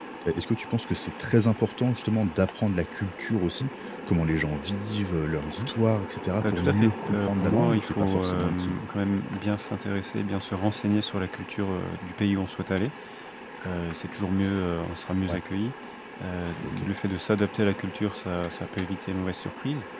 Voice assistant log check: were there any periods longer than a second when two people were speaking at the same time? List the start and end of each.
6.5-8.8

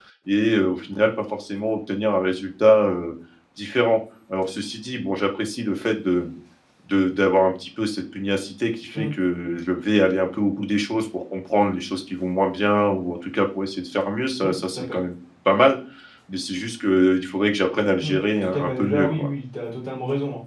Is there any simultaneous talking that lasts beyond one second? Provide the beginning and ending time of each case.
18.0-19.3

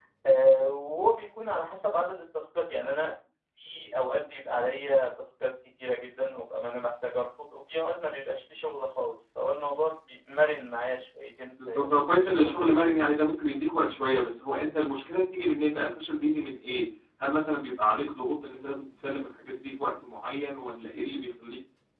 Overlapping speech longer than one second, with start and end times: 11.7-12.9

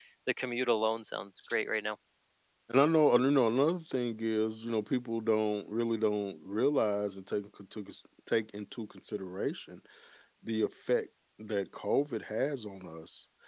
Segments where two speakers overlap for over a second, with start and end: none

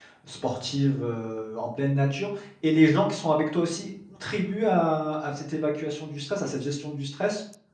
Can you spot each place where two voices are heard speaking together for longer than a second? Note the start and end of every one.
none

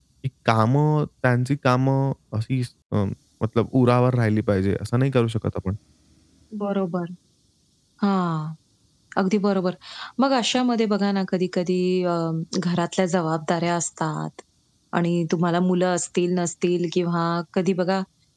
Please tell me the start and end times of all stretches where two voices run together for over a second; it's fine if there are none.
none

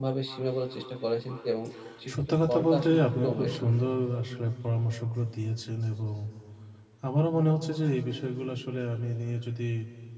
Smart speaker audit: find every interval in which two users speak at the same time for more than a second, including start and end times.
2.1-3.7

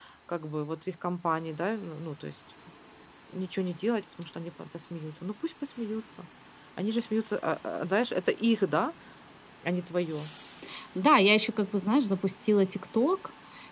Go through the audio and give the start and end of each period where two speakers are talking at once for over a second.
none

